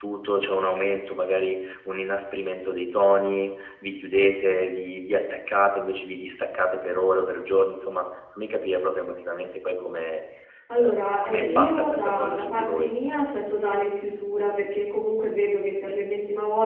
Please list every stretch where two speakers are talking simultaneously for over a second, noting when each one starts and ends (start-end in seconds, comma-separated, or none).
10.8-12.9